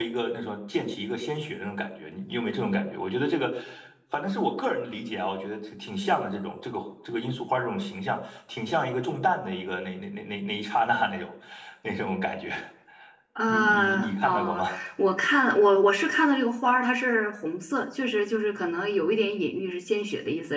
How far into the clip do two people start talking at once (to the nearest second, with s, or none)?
13 s